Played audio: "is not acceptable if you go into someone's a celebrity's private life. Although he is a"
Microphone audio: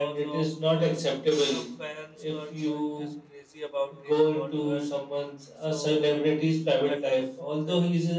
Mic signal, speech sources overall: both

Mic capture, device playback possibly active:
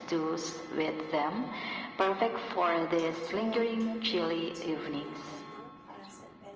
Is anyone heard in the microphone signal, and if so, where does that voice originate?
both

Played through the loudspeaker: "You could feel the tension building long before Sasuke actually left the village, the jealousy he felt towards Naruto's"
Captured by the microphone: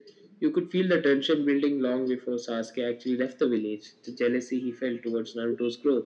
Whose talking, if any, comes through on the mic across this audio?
echo only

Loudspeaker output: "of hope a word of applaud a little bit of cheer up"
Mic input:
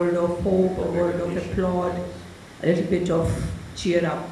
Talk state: both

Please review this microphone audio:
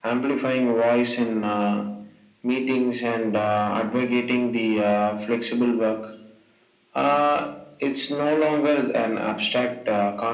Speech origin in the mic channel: echo only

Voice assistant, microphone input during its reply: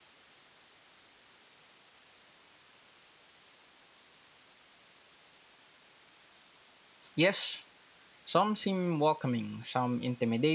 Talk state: user only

